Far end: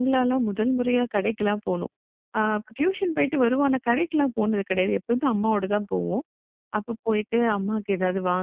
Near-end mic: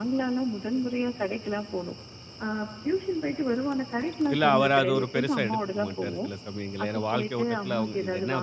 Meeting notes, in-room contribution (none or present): present